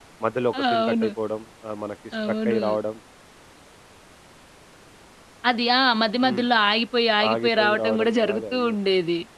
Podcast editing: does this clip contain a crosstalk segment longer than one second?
Yes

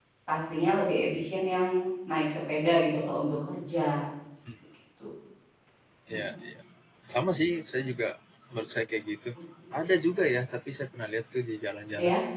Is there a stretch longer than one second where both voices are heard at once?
No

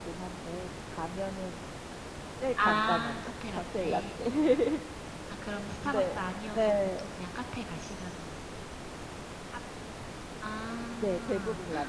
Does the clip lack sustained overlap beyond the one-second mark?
No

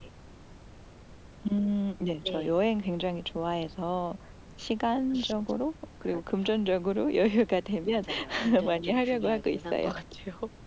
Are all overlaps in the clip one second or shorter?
No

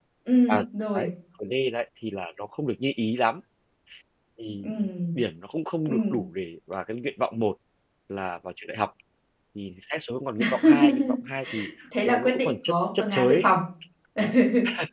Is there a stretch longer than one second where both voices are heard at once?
Yes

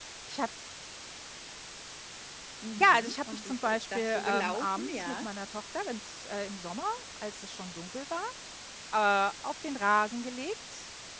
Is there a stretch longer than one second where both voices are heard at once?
Yes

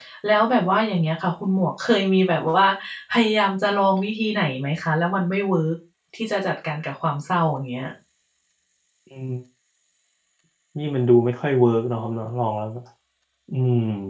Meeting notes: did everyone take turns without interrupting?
Yes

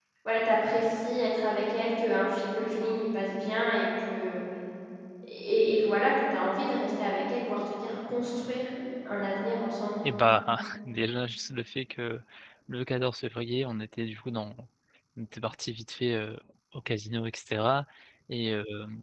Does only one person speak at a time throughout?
Yes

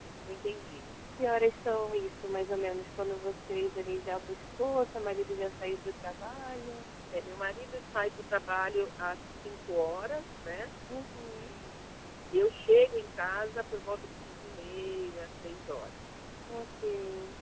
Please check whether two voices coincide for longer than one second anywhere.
No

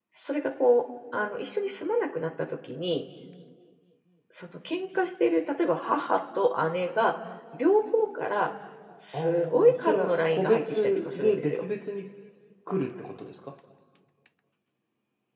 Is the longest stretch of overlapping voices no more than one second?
No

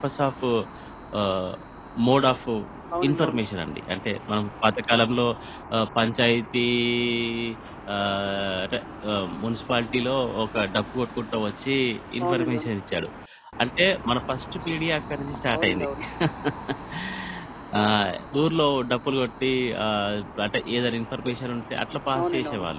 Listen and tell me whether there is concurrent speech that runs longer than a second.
No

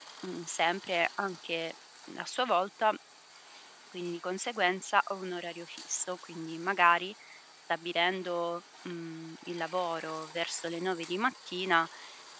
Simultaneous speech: No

